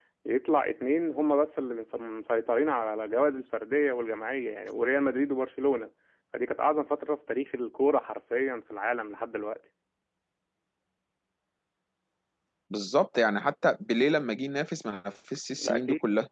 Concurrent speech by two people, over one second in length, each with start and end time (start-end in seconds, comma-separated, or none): none